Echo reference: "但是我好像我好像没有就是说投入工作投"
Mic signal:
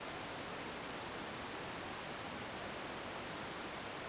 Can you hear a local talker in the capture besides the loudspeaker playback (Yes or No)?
No